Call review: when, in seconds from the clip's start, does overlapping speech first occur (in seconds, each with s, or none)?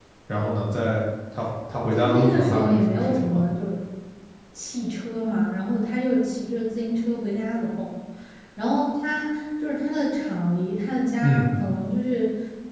1.9 s